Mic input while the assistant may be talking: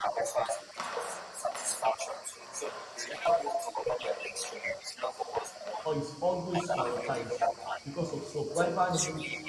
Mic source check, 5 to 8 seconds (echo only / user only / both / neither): both